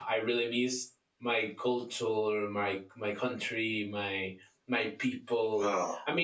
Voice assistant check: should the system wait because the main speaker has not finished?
Yes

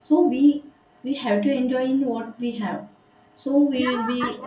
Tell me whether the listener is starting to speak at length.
Yes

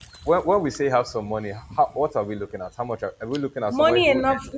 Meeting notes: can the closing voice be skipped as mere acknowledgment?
No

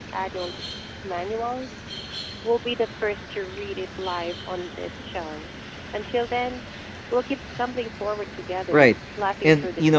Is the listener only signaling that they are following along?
No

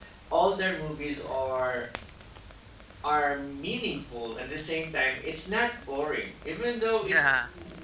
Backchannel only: Yes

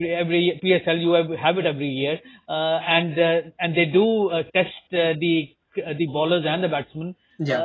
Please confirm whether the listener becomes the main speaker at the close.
No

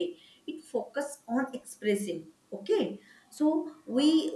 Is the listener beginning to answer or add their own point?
No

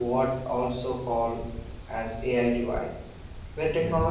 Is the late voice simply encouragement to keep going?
Yes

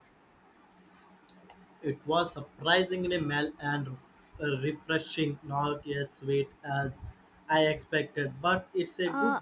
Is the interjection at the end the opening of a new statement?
Yes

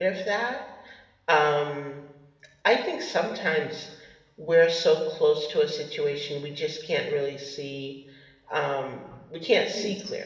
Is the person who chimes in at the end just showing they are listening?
Yes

